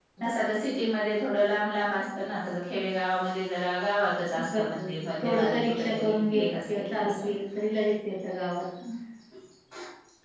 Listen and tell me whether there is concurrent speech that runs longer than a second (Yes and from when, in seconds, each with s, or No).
Yes, from 4.3 s